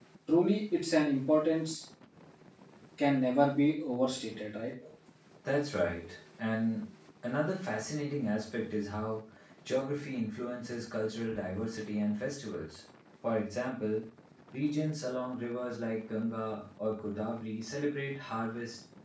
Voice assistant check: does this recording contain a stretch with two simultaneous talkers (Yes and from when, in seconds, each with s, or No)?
No